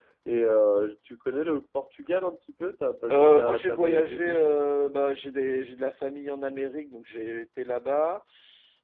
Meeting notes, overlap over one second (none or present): present